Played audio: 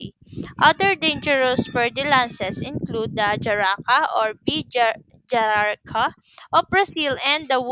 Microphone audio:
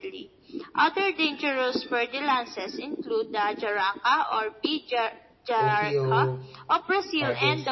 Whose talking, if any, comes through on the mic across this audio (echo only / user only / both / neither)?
both